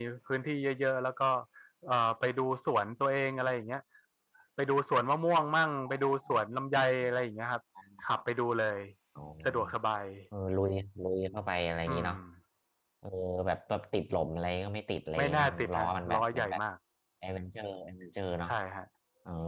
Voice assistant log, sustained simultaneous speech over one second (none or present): present